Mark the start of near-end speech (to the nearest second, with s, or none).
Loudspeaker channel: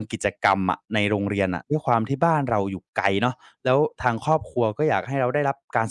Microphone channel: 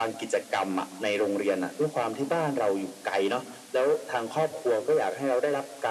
none